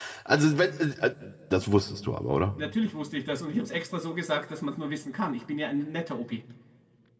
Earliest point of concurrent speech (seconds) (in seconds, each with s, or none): none